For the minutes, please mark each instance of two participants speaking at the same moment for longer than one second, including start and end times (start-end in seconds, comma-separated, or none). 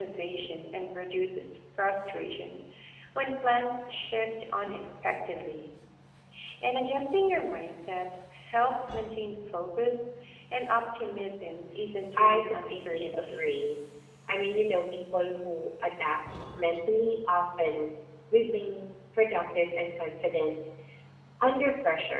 12.2-13.5